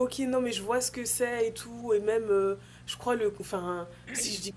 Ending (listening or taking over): listening